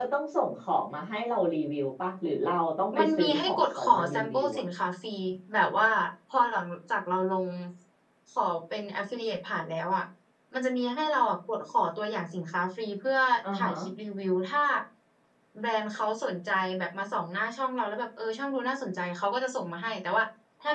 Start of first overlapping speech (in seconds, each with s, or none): 3.0 s